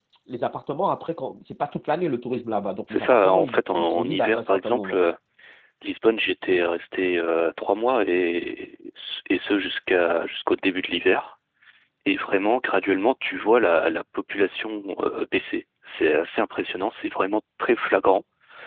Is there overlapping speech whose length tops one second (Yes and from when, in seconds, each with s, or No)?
Yes, from 2.9 s